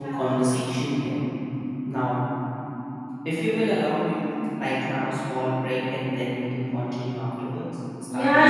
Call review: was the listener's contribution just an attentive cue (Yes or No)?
No